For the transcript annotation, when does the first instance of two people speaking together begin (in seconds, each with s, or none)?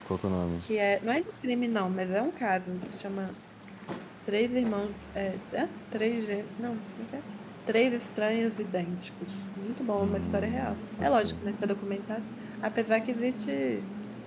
10.0 s